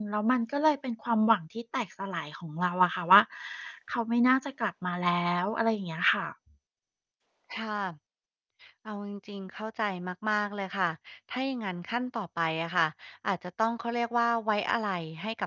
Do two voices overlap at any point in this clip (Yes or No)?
No